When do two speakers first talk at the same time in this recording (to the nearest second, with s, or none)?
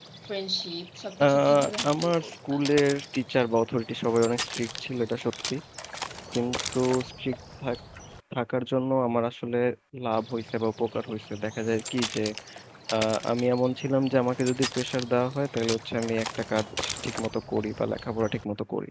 1 s